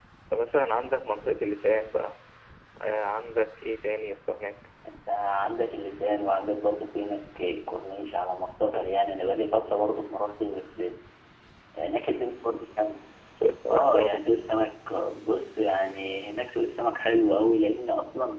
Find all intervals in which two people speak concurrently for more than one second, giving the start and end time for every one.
none

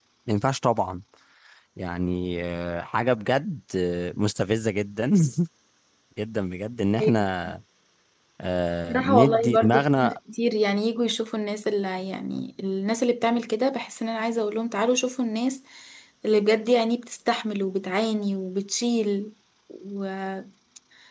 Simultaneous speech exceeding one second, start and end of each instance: 8.9-10.2

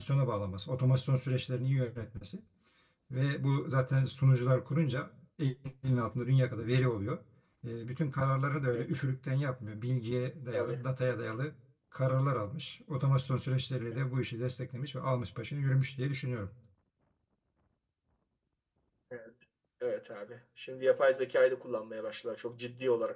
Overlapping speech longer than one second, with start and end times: none

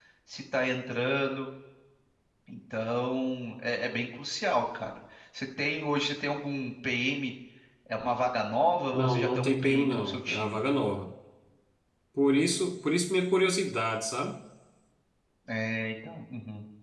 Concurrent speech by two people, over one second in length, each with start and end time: 8.9-10.6

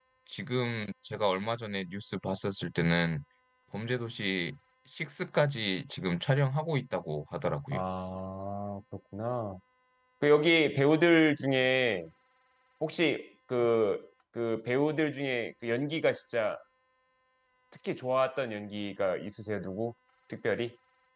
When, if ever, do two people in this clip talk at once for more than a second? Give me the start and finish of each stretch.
none

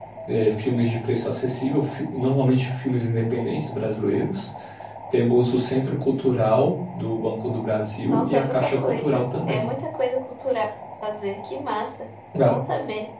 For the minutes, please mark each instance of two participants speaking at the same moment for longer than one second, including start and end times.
8.1-9.7

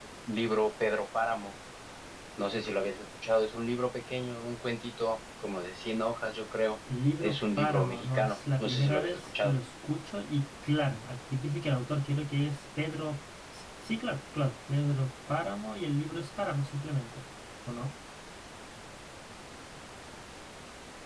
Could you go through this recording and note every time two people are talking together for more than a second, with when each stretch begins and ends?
7.2-9.5

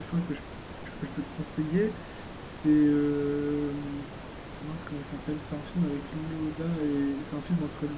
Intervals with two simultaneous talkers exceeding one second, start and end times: none

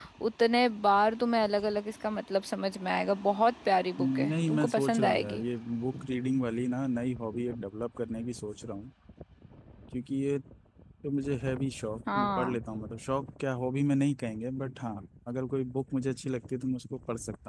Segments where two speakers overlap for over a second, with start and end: 4.0-5.4

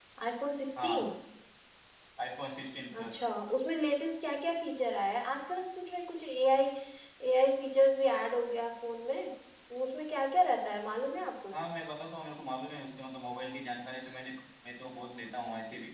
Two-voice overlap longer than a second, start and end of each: none

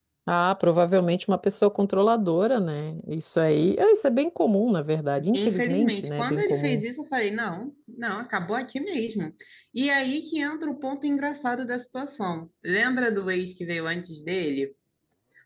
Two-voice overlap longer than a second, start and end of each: 5.3-6.8

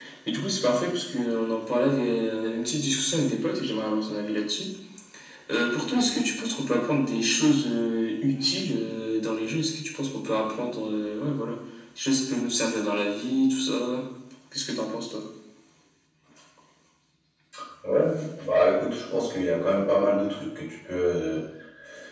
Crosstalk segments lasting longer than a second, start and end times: none

